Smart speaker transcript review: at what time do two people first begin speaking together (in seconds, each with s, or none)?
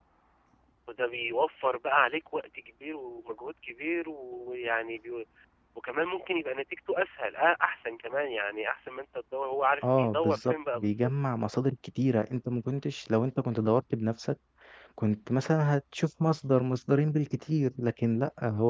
9.8 s